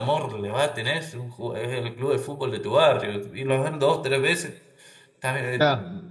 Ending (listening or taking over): listening